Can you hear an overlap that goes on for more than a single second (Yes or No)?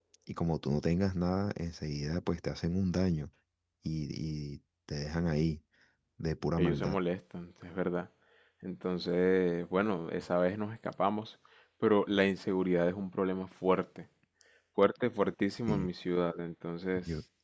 No